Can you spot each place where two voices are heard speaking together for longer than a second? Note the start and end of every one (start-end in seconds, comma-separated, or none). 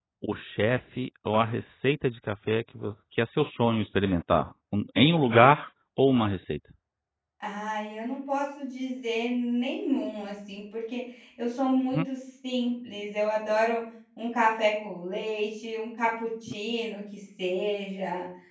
none